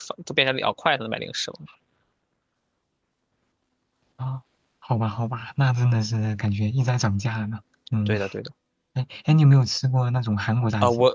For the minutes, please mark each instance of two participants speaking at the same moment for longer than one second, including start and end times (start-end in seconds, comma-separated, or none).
none